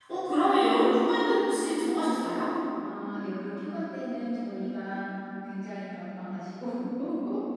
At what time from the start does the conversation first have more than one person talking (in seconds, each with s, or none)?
none